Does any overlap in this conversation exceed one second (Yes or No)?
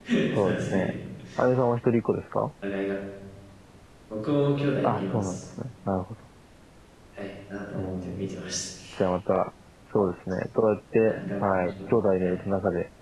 Yes